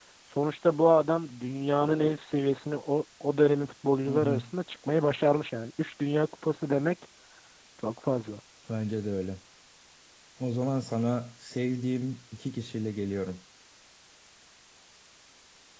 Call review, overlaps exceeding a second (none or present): none